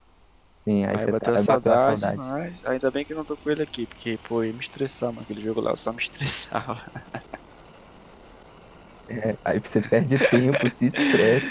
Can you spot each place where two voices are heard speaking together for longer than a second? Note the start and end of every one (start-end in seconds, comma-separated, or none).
0.9-2.2